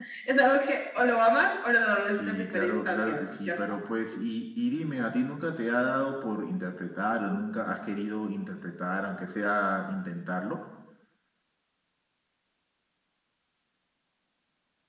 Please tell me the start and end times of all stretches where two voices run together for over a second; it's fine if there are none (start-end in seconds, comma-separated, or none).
2.1-3.7